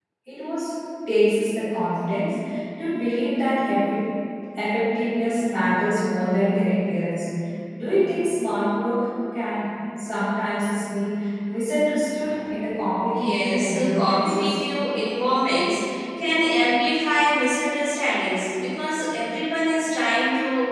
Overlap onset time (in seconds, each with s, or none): 13.1 s